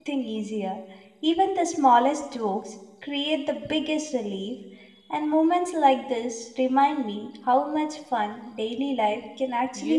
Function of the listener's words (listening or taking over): taking over